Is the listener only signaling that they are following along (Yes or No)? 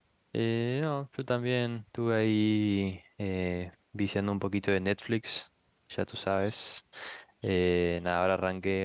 Yes